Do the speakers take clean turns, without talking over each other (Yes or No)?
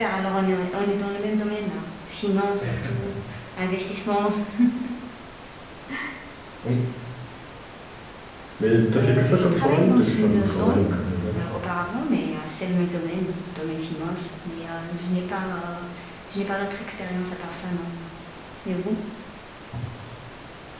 No